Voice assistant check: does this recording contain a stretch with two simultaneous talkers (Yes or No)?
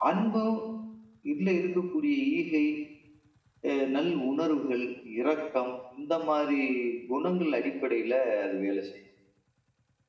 No